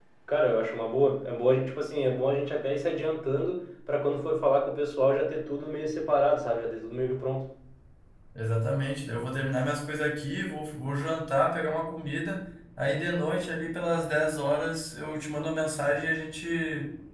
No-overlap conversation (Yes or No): Yes